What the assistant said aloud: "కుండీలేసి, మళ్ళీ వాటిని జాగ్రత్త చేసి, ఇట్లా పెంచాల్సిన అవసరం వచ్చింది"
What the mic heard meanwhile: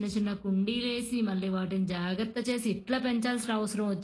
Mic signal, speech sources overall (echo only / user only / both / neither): echo only